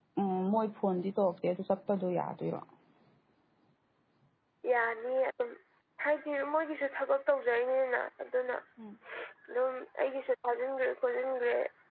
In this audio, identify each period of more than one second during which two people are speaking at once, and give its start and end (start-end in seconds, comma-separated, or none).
none